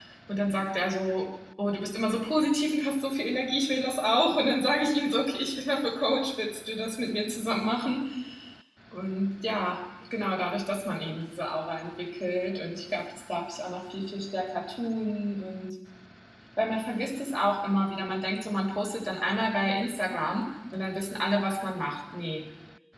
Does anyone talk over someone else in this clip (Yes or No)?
No